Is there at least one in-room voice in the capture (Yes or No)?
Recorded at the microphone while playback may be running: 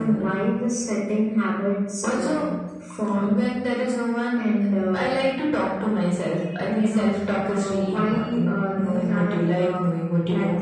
No